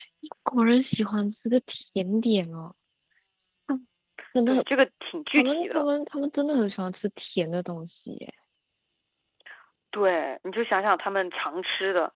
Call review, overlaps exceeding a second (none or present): none